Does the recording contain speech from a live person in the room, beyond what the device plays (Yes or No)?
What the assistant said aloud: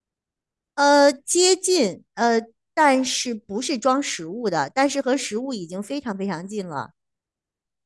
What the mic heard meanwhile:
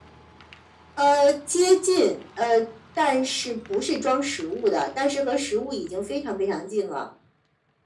No